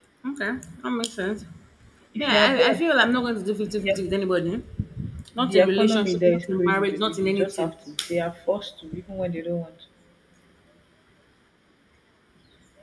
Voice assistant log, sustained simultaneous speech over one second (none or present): present